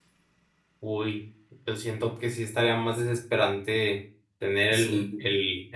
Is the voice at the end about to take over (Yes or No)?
No